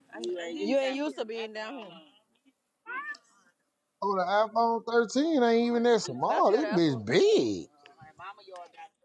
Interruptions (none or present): present